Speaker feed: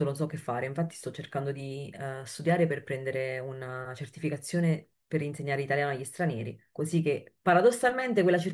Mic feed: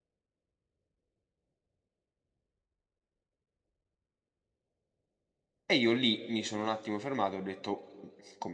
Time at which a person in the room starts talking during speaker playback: 5.6 s

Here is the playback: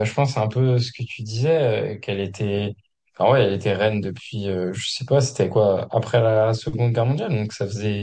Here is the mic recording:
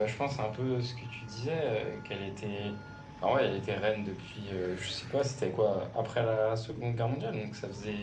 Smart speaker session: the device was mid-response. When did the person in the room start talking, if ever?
none

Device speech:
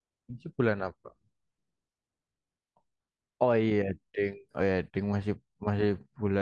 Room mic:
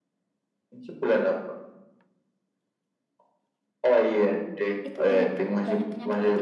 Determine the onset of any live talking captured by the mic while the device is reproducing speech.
4.8 s

